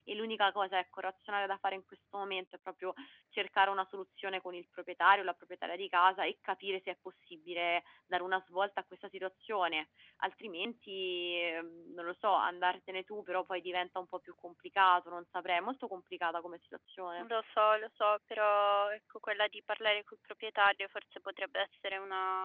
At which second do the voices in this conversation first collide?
none

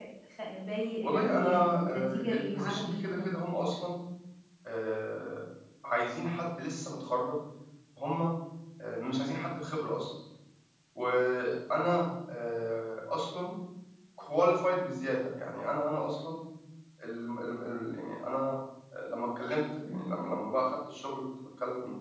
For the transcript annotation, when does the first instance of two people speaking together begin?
1.0 s

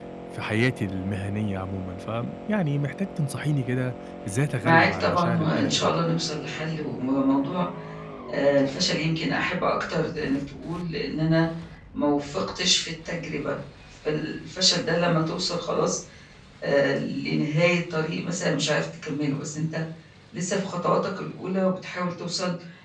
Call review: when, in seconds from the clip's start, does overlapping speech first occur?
4.6 s

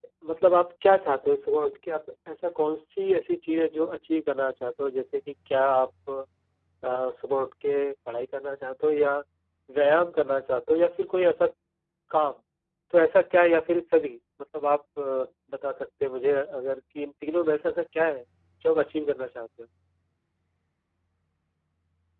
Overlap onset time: none

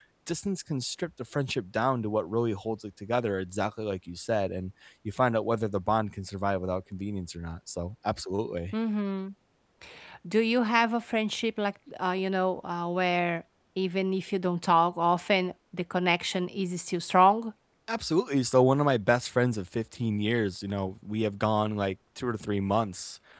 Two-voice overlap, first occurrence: none

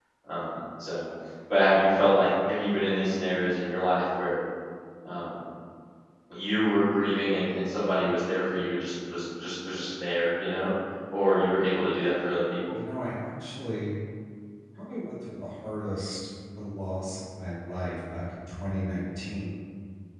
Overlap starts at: none

